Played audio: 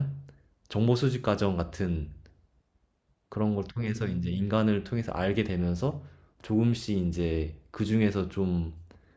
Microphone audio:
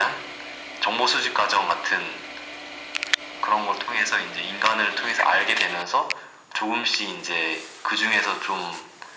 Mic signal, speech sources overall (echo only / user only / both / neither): echo only